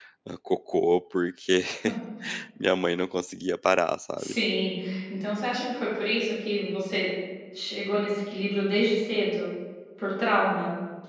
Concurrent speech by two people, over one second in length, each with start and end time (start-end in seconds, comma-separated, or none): none